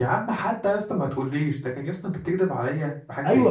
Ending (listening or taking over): taking over